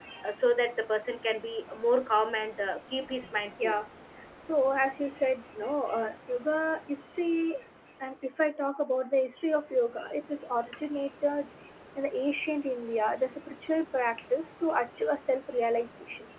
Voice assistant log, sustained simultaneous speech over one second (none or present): none